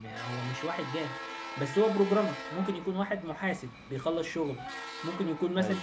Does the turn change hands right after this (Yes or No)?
No